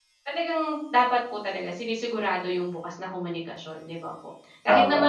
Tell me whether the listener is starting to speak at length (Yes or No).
No